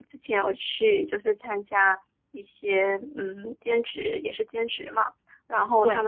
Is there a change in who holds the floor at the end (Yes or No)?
No